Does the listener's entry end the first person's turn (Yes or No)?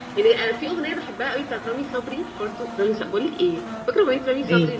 No